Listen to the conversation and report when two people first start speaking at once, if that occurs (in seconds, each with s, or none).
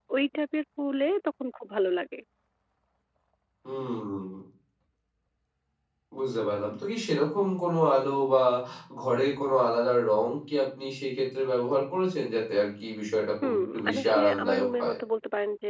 13.4 s